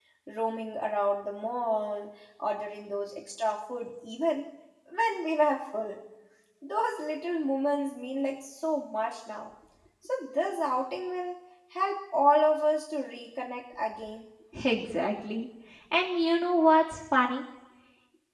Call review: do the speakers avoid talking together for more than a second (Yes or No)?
Yes